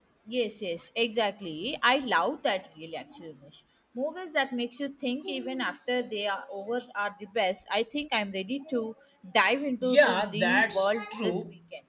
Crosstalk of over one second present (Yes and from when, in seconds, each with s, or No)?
Yes, from 9.8 s